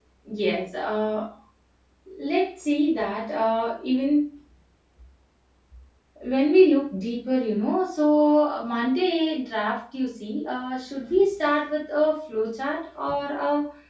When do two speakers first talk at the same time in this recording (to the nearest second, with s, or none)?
none